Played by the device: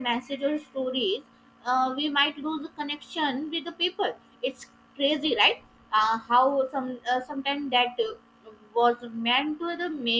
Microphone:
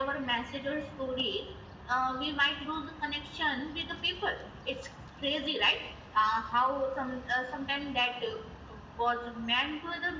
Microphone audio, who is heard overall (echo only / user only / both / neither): echo only